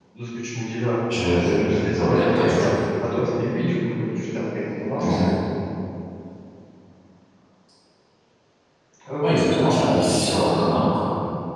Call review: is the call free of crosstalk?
No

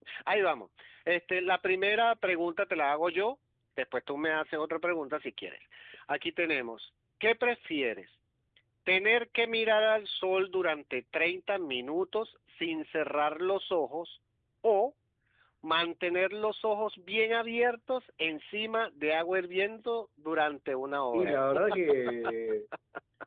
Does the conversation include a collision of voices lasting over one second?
No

